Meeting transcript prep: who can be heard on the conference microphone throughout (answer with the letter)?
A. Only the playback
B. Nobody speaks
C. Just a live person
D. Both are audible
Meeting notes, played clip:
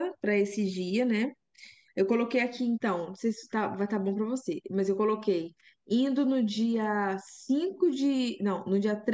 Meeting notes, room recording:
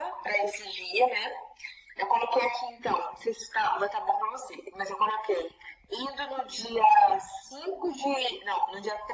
A